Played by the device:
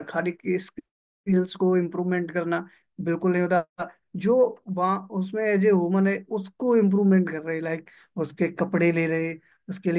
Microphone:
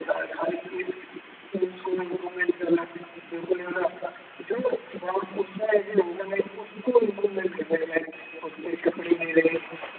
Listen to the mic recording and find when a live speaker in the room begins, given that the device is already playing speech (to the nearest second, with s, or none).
none